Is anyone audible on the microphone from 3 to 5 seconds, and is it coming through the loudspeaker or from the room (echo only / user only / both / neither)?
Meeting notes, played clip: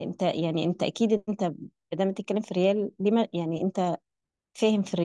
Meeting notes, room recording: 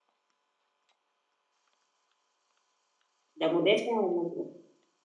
user only